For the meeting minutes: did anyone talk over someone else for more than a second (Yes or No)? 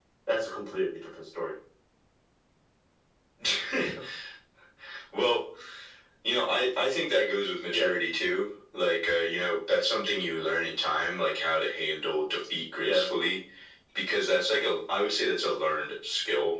No